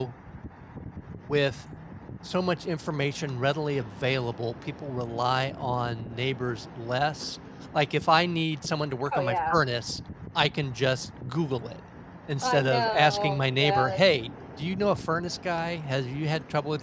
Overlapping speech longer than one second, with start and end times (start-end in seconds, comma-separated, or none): 12.4-14.0